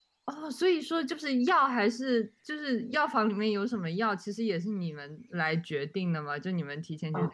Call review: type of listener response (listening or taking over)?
listening